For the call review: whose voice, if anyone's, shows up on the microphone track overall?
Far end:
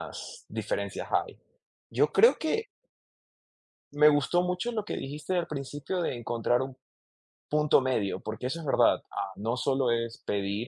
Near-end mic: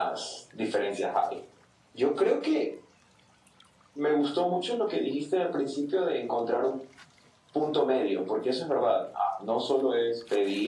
echo only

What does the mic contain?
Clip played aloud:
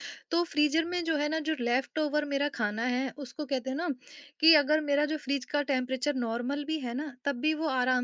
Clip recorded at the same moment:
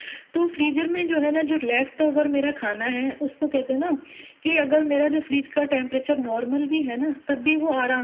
echo only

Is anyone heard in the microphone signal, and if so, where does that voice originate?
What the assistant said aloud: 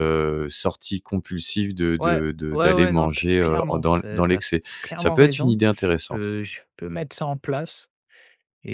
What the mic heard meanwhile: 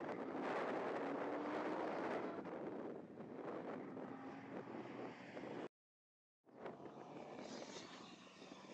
neither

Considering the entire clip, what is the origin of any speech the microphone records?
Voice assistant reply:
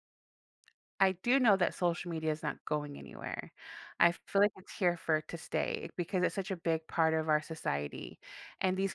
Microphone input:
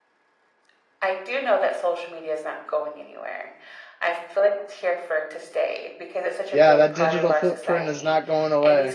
both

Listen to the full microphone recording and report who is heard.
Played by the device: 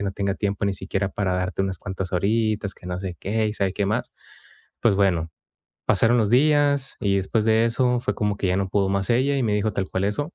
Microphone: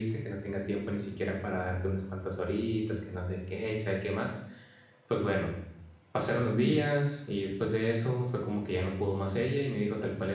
both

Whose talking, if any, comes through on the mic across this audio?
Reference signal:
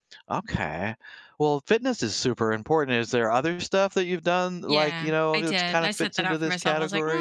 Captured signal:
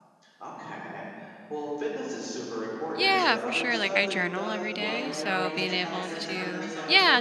both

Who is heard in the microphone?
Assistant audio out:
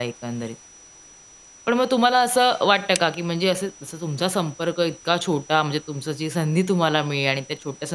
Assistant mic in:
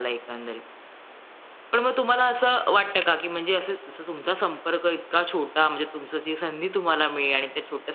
echo only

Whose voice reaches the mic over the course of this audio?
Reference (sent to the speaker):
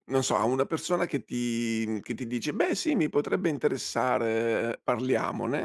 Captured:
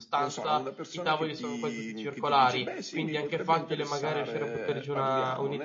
both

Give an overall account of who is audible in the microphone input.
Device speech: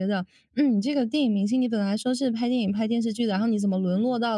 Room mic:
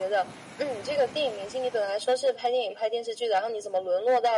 echo only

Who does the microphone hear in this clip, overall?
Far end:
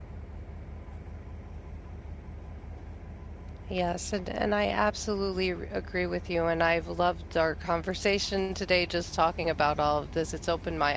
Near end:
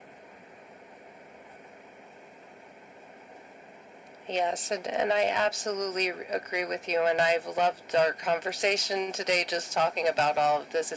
echo only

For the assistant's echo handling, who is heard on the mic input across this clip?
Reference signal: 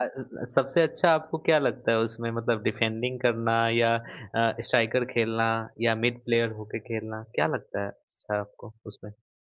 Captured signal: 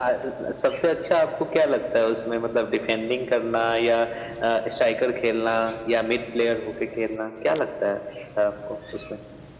echo only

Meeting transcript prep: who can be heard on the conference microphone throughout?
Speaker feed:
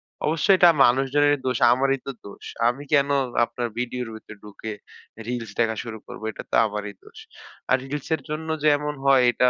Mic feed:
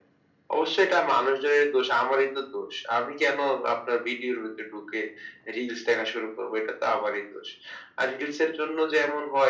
echo only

